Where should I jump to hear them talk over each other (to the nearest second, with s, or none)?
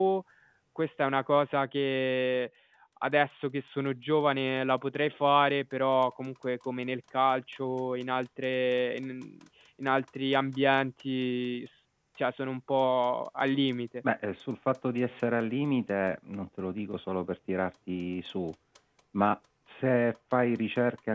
none